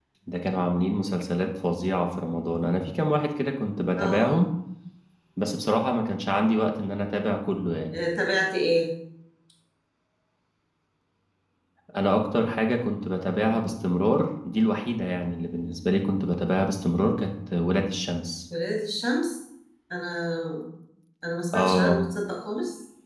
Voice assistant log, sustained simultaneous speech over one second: none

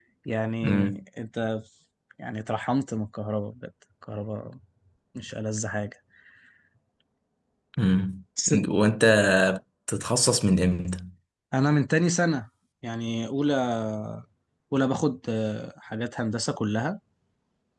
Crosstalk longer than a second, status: none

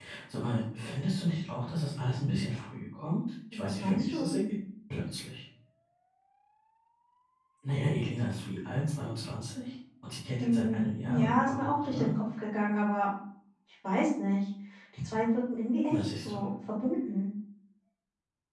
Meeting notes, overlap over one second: present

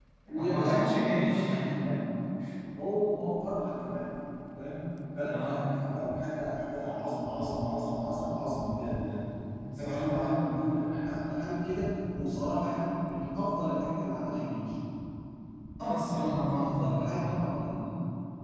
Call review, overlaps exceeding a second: present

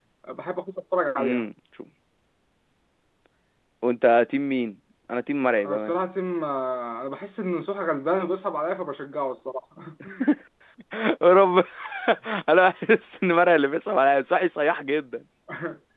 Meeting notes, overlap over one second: none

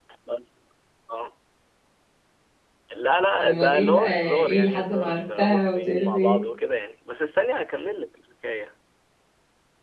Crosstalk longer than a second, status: present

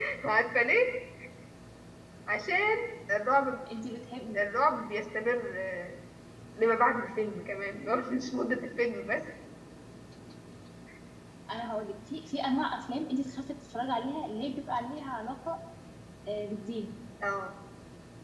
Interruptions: none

